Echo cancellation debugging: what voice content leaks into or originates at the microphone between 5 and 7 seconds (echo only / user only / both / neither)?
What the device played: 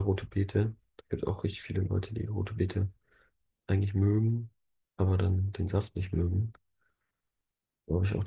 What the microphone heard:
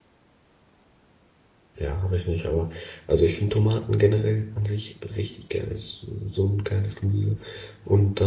user only